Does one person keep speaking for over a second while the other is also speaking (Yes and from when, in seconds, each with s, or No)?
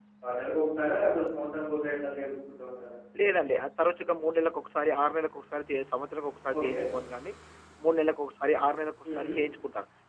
No